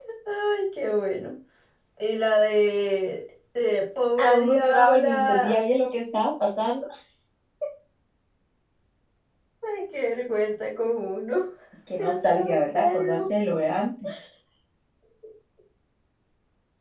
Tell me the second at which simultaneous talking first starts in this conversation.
4.2 s

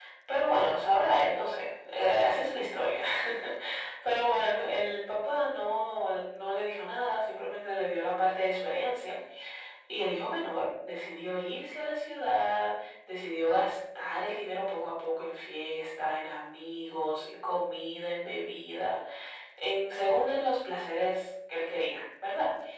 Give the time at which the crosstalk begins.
none

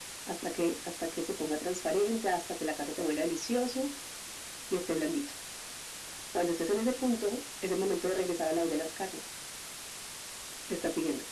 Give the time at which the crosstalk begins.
none

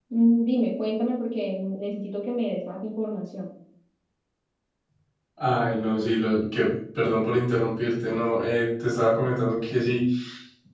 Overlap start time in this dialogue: none

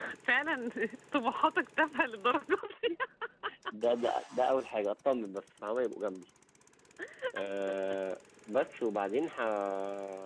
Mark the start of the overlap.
none

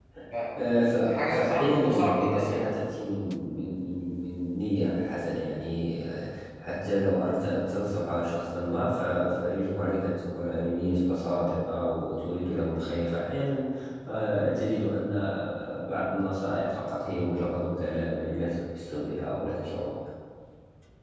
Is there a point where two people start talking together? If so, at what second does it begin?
1.0 s

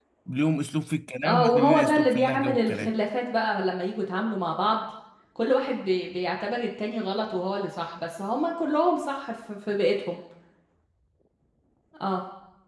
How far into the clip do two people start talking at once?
1.2 s

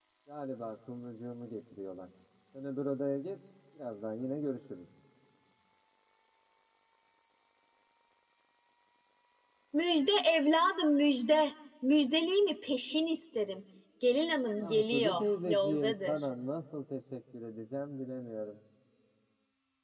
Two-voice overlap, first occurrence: 14.6 s

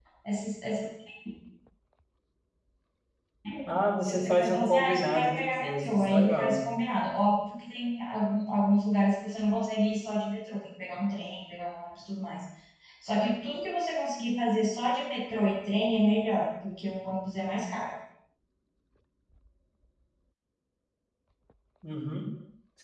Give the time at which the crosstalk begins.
4.0 s

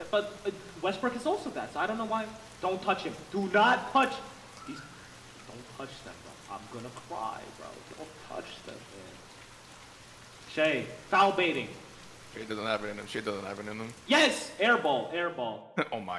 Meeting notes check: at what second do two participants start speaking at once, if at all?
none

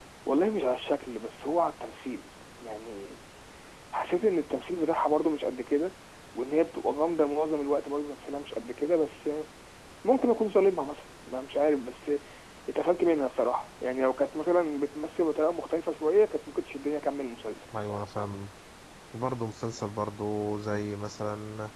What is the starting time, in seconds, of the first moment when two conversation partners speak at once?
none

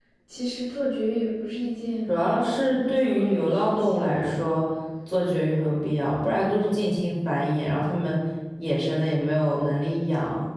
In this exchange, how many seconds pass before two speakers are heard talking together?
2.1 s

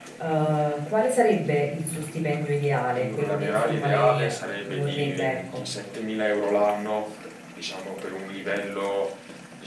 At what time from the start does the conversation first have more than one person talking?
3.0 s

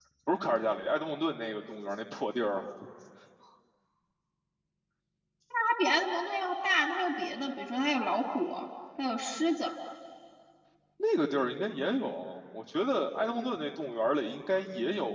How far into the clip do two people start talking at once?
none

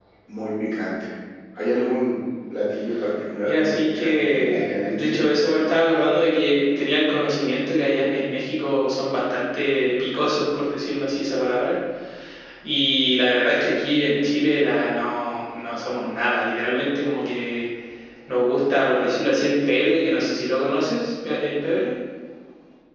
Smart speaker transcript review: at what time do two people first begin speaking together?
3.5 s

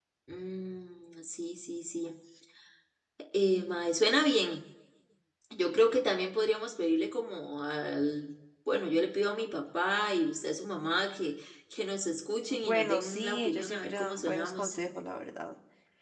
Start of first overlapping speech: 12.5 s

